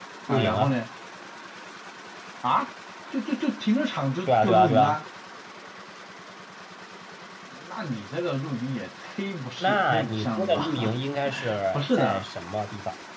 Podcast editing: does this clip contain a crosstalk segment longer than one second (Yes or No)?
Yes